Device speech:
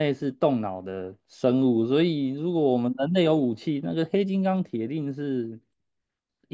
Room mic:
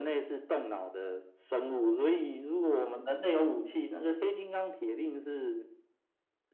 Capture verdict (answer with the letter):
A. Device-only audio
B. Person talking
A